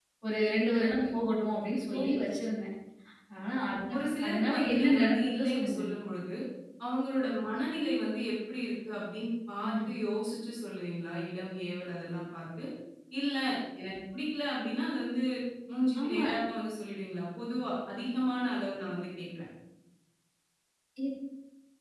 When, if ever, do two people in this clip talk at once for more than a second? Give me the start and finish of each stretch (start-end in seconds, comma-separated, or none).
3.9-5.8